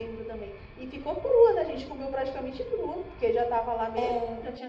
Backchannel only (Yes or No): Yes